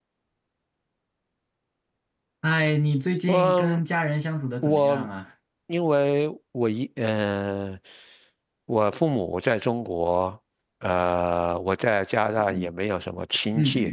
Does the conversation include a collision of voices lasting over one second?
No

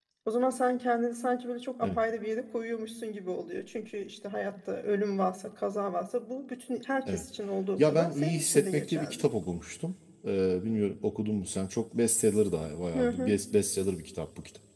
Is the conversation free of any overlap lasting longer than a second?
No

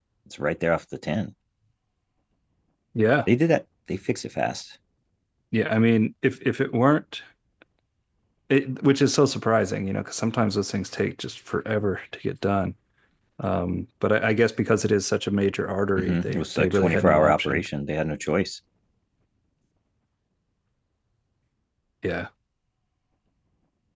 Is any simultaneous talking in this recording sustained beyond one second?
Yes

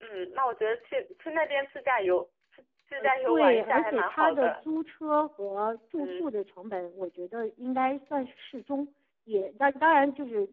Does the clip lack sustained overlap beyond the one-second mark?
No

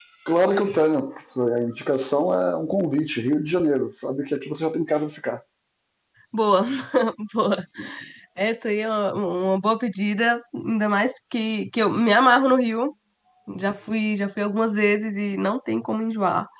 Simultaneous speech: No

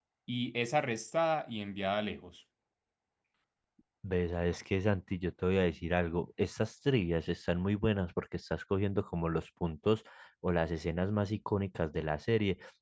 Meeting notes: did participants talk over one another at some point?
No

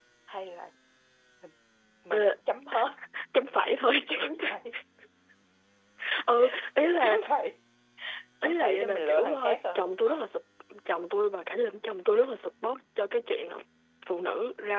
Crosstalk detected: Yes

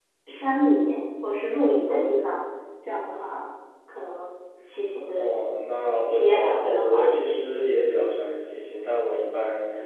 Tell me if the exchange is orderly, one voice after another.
No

